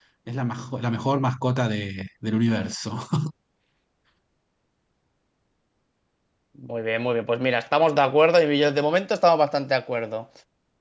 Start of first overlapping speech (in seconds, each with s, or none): none